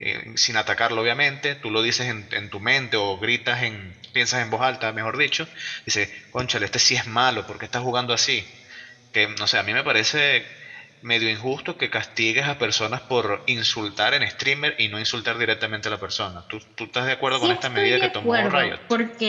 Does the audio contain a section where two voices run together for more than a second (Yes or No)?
Yes